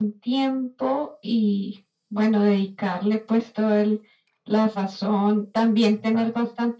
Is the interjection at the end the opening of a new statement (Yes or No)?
No